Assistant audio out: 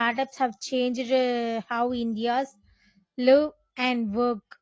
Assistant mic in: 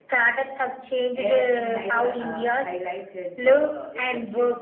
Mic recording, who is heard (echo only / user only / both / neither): both